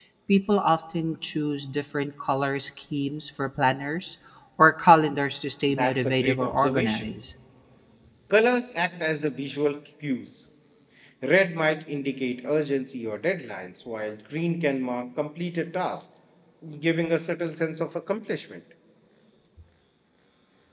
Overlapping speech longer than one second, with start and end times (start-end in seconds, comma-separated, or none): 5.7-7.1